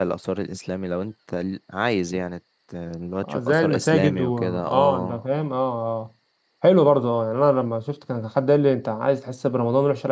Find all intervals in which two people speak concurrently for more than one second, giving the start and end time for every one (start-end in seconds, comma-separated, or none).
3.2-5.2